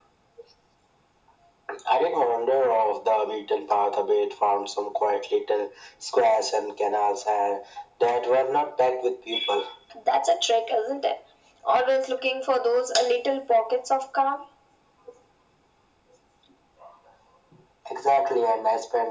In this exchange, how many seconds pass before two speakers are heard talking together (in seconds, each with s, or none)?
none